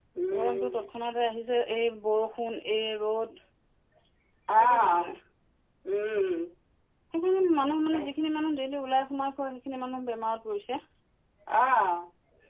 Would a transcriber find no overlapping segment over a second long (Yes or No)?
Yes